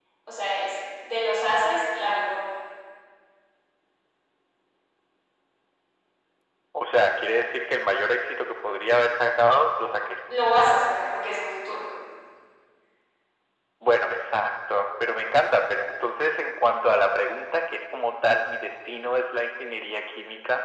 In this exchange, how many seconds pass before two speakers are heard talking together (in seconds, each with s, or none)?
none